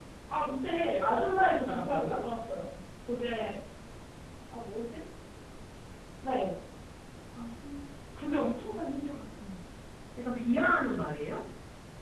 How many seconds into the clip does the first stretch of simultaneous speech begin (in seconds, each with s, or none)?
1.0 s